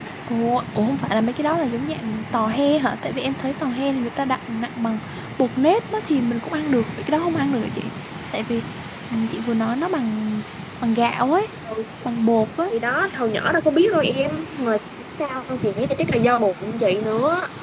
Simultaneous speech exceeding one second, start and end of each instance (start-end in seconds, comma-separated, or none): none